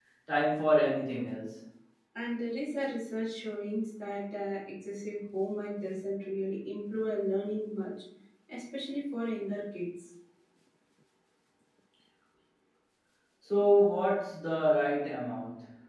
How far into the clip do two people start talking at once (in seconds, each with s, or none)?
none